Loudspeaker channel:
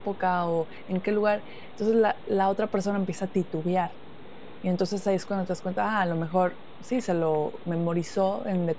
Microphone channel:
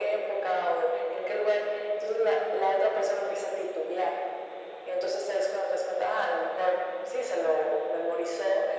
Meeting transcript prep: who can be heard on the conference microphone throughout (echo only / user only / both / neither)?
echo only